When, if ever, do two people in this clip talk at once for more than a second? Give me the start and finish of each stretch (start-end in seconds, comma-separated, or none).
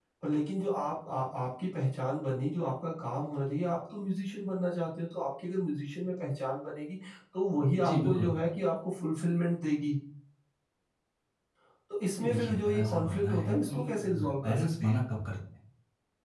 12.2-15.0